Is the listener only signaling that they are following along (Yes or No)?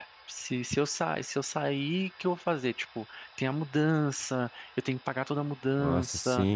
No